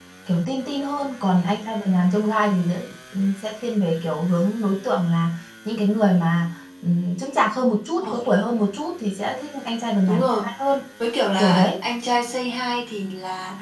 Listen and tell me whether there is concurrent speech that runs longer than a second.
No

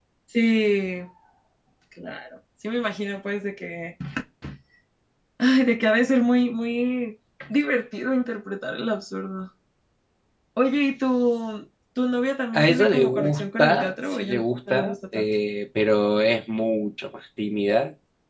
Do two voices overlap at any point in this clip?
Yes, from 12.5 s

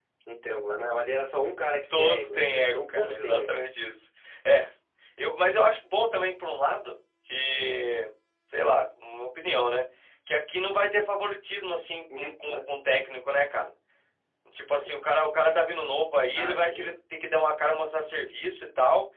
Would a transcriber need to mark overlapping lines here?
Yes, from 1.9 s

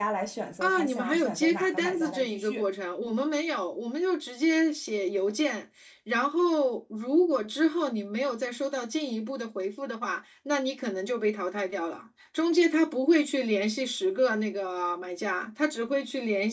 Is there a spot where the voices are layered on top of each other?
Yes, from 0.6 s

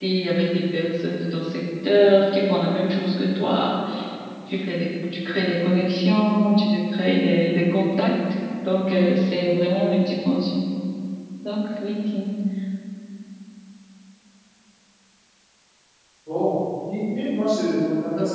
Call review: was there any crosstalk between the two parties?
No

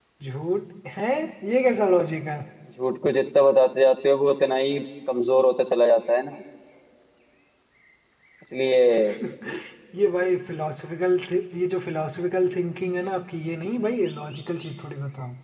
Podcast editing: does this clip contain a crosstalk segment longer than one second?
No

